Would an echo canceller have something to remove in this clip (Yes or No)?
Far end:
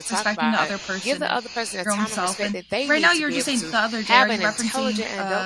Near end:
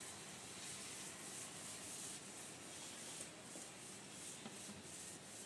No